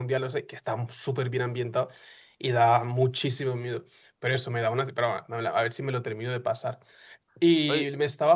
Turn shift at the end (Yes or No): No